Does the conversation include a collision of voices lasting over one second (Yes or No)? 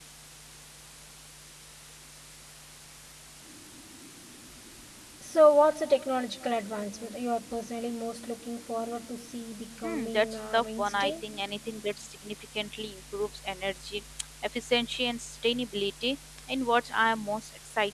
Yes